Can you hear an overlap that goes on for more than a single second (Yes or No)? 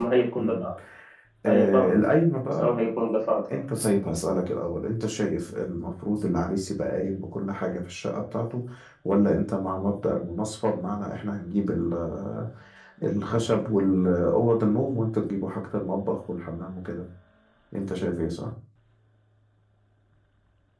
No